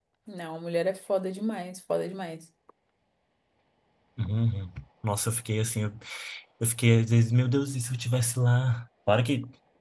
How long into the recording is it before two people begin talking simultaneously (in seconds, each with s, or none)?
none